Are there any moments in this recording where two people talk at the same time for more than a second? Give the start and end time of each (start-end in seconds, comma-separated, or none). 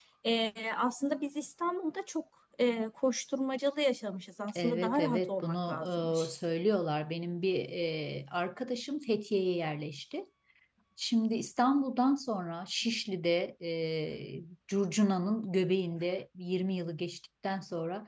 4.5-6.3